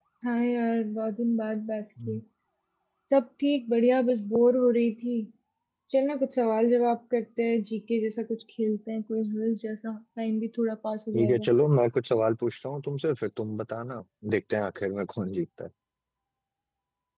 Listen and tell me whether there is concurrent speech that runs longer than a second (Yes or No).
No